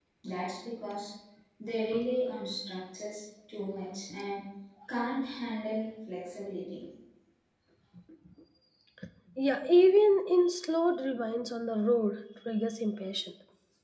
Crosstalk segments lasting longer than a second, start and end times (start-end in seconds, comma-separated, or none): none